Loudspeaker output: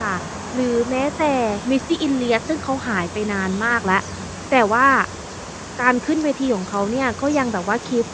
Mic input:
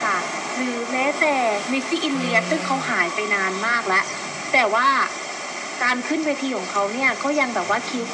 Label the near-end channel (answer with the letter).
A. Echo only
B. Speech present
B